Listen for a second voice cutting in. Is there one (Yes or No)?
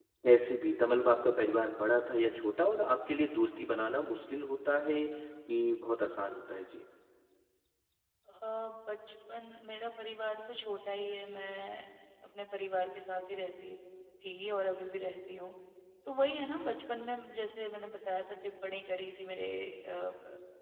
No